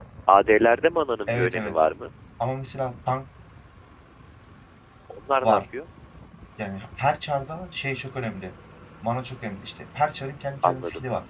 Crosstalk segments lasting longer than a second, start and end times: none

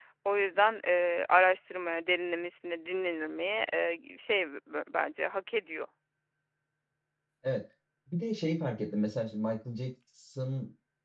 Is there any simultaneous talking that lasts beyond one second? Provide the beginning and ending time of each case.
none

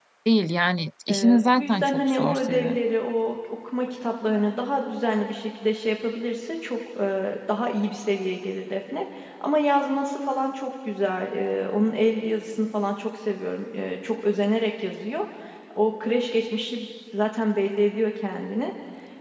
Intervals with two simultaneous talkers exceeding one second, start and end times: 1.1-2.8

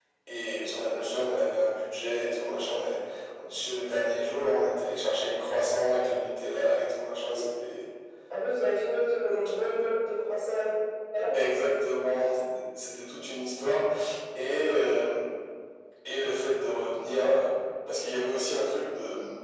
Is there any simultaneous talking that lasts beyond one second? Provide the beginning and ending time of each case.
none

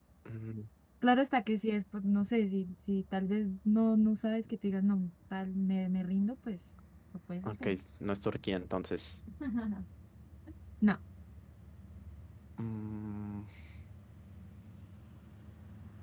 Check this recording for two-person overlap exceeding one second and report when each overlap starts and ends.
none

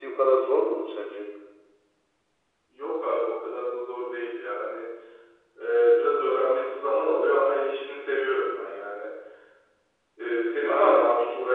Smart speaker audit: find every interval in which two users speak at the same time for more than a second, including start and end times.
none

